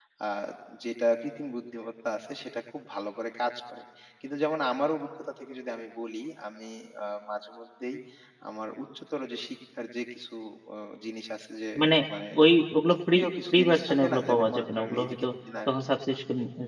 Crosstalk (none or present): present